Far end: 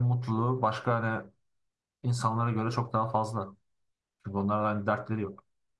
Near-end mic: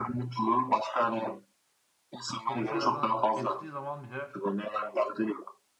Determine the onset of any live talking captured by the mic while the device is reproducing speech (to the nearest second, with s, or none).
2 s